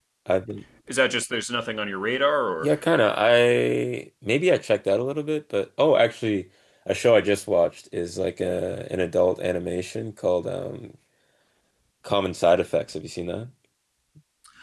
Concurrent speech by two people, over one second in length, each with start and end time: none

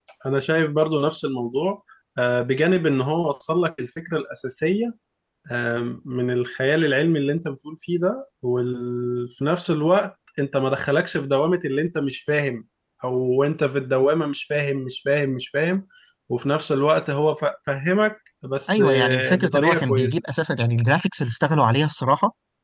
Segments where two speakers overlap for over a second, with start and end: 18.7-20.1

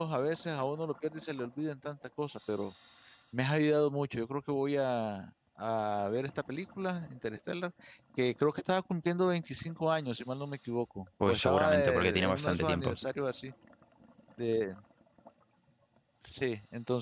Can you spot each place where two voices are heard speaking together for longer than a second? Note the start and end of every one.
11.2-12.9

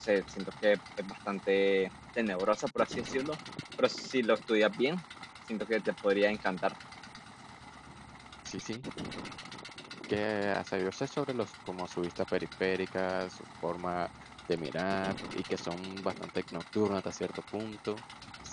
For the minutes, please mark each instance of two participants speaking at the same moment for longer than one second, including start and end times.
none

